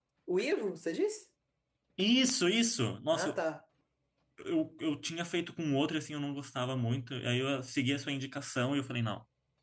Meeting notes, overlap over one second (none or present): none